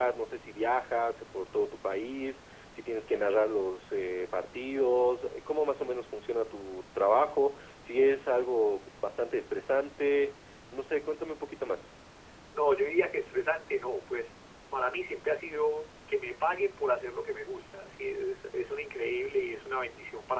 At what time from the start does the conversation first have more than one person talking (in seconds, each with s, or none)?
none